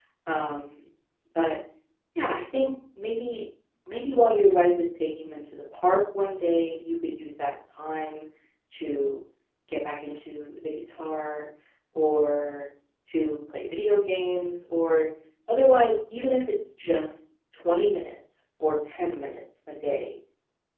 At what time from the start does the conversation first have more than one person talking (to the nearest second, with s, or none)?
none